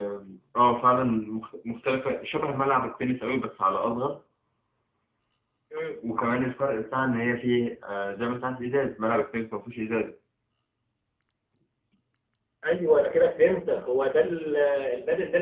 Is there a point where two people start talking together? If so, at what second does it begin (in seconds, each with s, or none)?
none